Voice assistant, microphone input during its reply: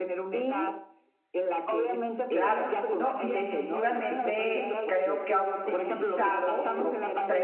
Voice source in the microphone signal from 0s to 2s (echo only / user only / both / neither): echo only